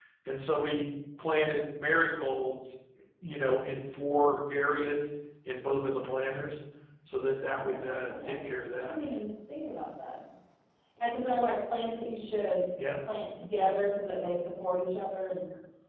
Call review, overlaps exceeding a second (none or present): present